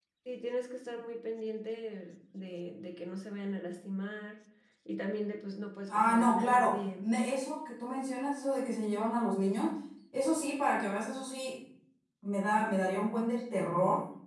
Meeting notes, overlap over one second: present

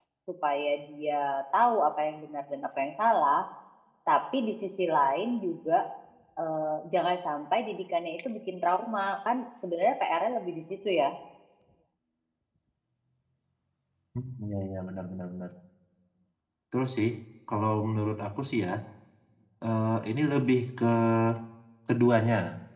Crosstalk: none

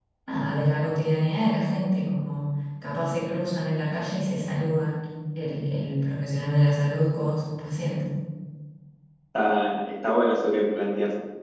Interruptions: none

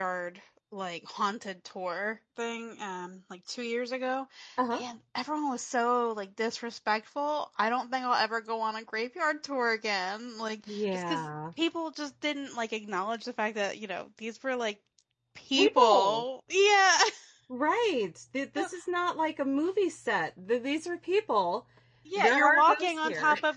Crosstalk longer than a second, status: present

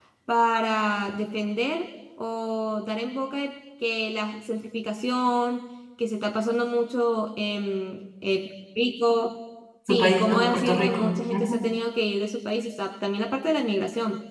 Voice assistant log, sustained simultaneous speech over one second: present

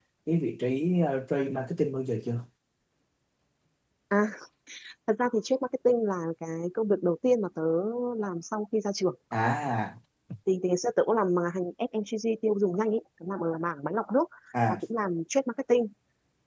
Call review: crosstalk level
none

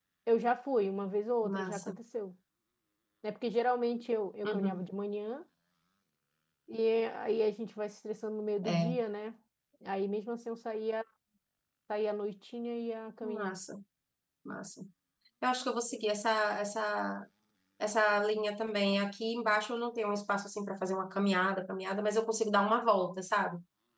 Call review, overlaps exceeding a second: none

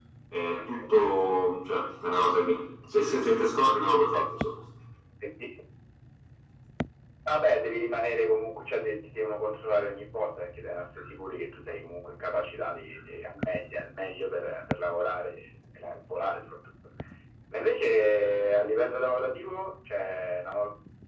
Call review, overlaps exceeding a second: none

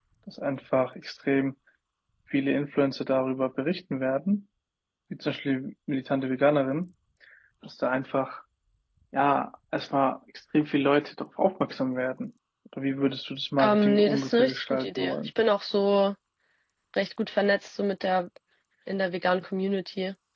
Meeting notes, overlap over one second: present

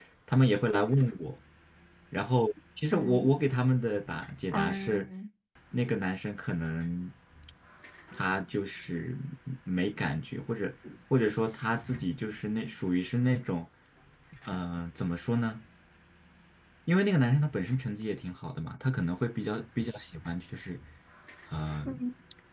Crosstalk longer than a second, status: none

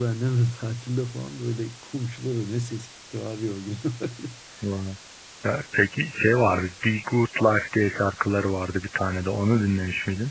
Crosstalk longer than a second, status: none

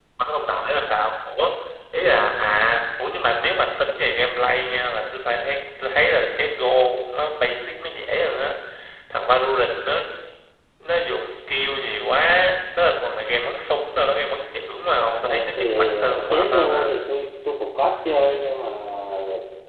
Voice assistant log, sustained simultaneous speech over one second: present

